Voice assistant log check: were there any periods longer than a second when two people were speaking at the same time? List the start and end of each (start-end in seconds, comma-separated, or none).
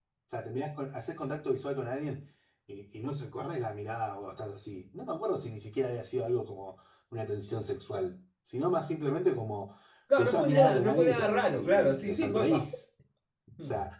10.2-12.6